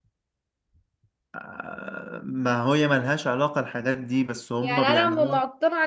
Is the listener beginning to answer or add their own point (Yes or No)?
Yes